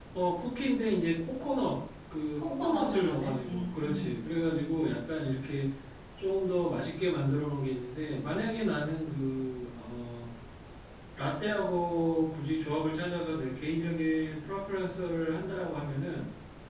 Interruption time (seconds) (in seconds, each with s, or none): 2.3 s